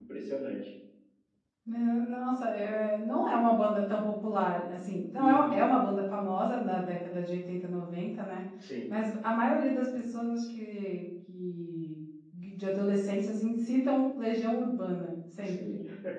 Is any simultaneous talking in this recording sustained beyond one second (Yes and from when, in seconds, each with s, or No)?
No